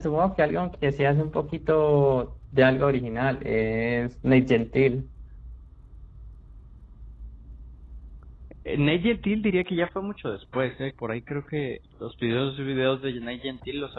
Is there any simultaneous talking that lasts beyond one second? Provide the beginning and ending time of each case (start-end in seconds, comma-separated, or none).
none